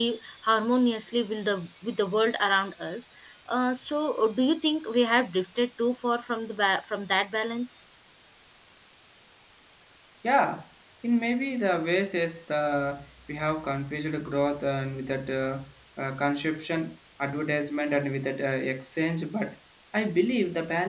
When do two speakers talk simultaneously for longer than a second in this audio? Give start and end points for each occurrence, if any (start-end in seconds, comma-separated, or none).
none